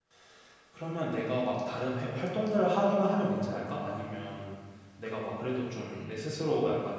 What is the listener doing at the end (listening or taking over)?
listening